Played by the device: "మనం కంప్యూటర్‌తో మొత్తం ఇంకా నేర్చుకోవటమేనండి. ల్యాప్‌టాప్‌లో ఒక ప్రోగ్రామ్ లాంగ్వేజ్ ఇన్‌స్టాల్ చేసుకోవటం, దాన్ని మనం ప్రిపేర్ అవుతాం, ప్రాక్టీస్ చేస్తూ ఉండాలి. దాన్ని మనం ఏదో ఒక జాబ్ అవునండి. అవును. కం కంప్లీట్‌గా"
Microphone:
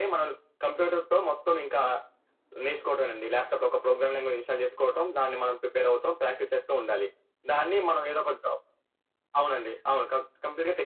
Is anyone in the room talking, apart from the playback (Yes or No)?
No